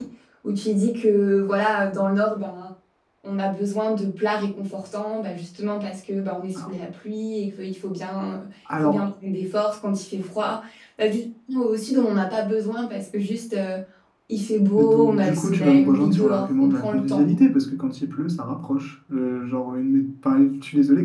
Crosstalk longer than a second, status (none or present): present